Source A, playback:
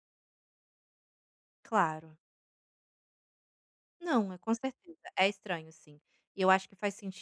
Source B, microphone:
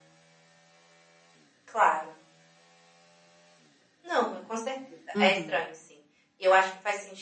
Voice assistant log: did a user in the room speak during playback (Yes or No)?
Yes